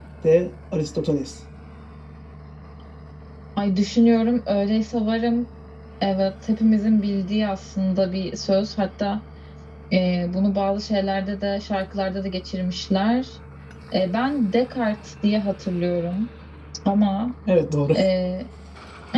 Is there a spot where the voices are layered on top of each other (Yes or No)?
No